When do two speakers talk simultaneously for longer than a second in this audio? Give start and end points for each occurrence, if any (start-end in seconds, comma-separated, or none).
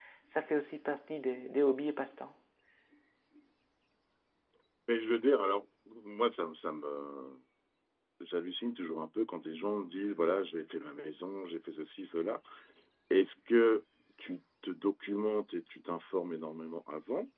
none